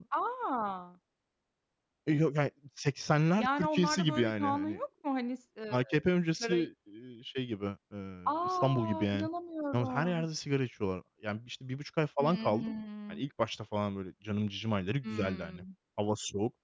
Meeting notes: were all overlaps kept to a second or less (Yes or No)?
No